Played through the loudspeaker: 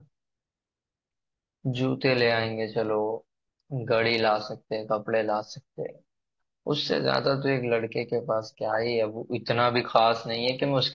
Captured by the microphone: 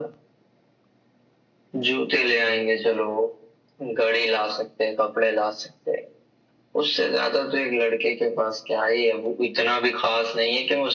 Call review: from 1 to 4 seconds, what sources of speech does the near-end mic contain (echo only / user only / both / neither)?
echo only